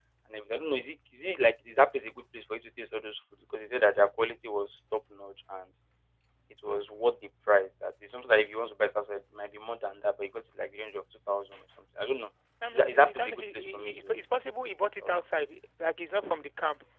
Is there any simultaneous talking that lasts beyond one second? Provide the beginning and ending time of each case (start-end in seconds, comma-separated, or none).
12.7-14.1